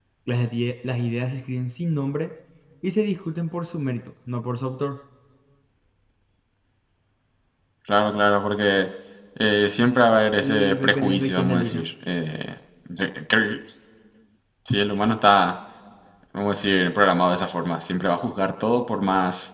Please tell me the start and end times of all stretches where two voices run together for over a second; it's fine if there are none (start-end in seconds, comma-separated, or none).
10.4-11.8